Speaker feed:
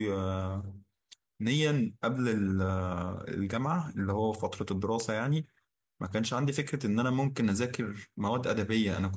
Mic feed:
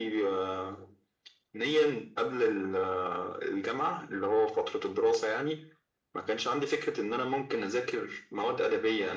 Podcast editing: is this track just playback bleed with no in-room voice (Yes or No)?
Yes